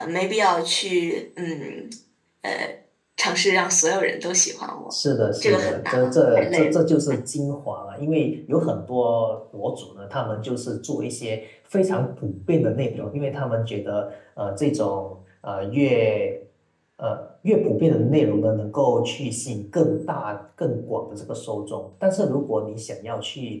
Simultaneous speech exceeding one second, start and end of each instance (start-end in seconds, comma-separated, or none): 5.4-6.7